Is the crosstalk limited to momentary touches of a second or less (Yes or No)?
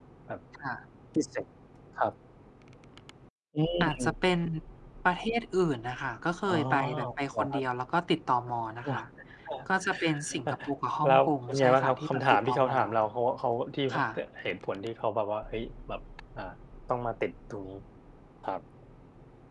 No